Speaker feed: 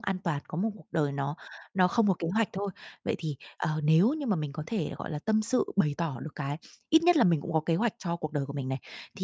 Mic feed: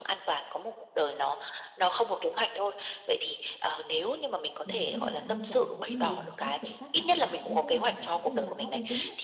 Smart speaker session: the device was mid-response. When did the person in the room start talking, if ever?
4.6 s

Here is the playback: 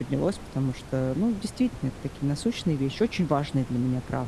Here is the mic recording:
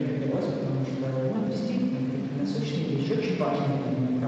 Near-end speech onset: 1.3 s

